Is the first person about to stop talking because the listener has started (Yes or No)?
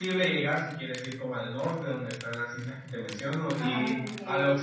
No